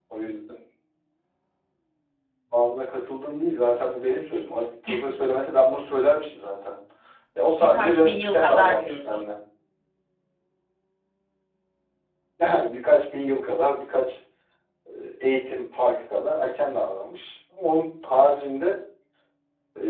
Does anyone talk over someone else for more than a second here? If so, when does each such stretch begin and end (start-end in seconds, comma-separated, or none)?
7.6-9.2